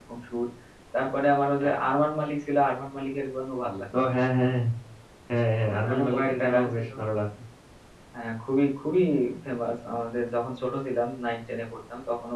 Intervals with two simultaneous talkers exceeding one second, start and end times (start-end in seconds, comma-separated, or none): 5.7-6.9